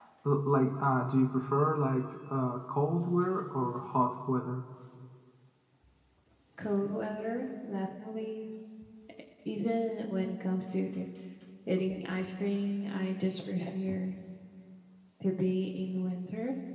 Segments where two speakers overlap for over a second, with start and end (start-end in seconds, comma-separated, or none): none